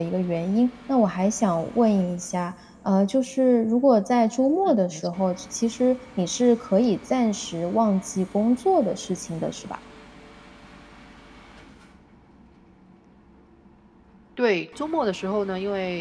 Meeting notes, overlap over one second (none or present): none